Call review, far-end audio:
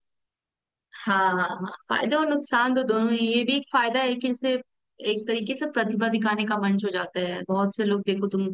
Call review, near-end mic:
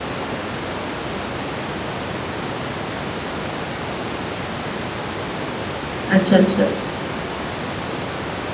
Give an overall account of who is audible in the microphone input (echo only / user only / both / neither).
user only